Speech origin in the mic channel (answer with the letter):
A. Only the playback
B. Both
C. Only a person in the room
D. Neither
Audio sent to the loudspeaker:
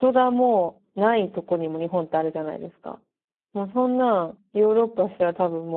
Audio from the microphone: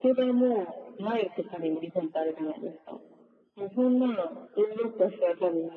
A